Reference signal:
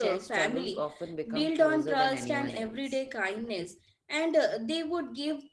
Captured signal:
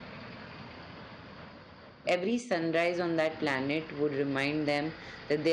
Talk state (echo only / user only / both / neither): user only